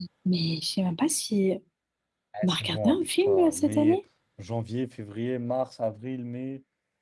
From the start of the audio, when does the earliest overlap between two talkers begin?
2 s

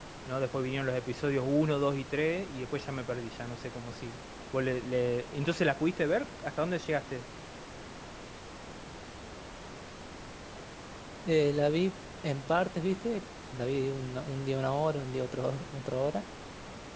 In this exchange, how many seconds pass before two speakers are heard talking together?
none

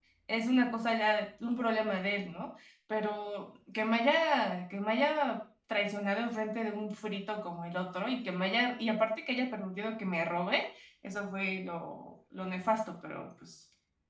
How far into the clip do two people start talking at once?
none

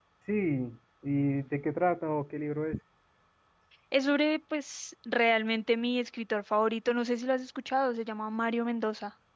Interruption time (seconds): none

